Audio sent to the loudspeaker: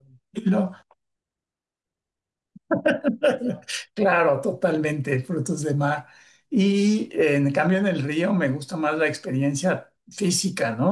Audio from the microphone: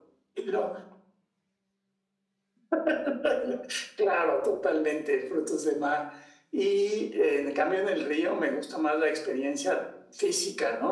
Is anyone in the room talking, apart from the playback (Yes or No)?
No